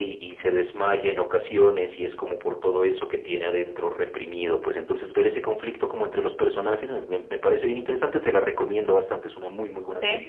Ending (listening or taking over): taking over